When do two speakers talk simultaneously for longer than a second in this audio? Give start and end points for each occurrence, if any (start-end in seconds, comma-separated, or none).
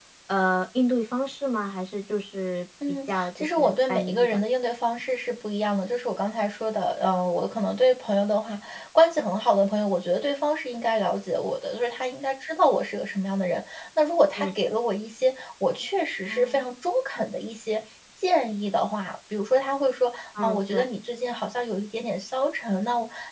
2.9-4.4